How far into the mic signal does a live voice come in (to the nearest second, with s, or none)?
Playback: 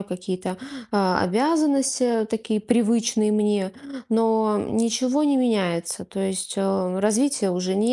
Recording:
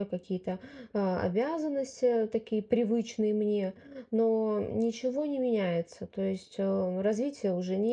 none